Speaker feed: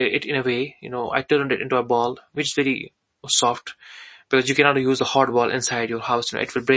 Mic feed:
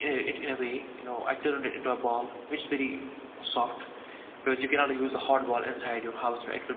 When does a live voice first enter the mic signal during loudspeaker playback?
none

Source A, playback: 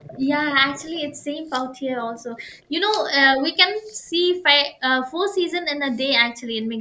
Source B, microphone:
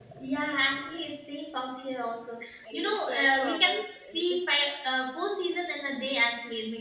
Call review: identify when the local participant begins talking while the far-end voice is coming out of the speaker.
2.7 s

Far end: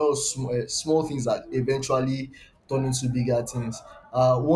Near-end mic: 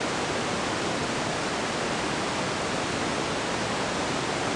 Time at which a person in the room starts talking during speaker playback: none

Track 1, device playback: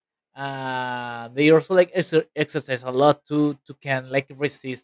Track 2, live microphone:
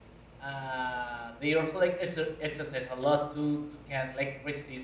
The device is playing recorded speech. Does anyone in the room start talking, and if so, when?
none

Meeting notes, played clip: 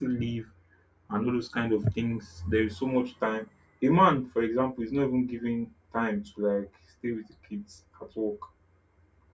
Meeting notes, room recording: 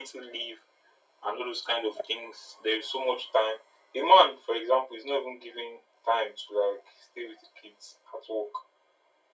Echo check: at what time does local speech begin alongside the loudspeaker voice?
none

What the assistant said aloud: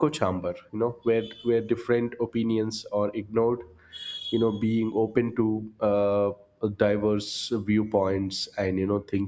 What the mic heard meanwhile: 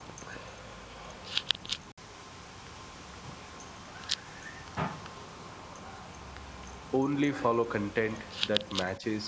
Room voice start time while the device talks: 6.9 s

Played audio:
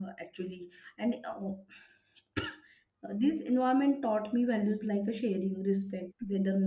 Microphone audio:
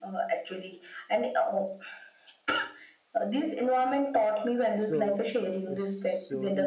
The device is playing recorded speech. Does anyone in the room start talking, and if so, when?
4.8 s

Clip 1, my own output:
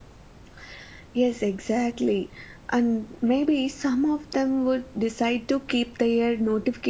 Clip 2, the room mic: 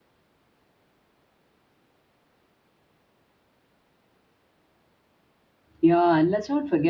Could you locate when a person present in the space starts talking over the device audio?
5.8 s

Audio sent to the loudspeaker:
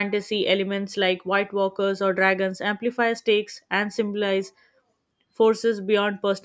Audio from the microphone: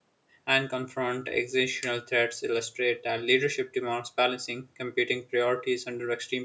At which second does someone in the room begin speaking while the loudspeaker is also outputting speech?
0.4 s

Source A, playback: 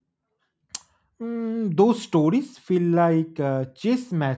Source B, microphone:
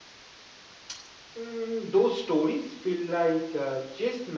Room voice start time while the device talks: none

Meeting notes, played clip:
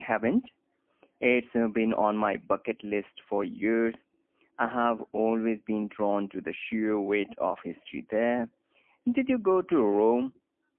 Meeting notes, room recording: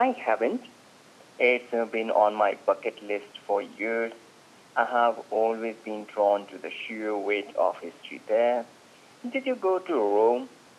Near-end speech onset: none

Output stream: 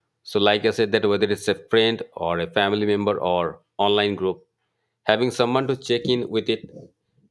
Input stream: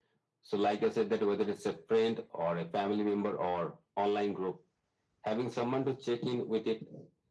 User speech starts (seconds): none

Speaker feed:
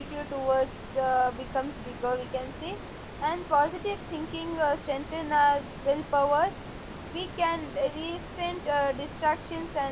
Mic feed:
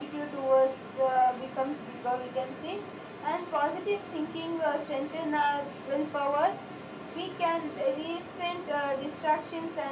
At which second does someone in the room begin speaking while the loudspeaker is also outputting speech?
none

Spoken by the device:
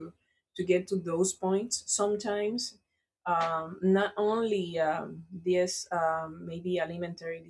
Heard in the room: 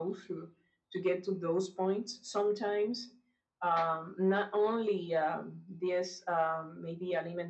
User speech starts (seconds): none

